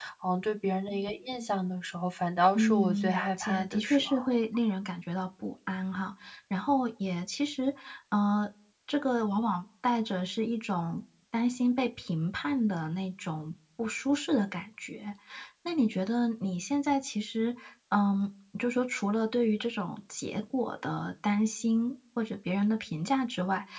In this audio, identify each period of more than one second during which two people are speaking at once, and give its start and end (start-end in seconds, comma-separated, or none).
2.5-4.3